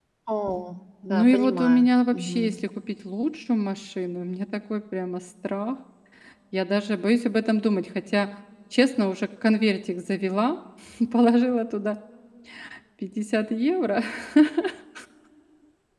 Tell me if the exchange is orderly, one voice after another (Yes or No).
No